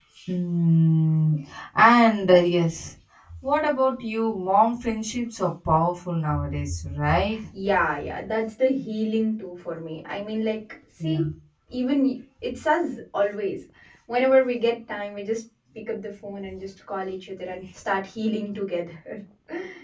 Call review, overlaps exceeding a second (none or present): none